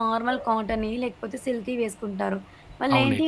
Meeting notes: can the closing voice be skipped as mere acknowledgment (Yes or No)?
Yes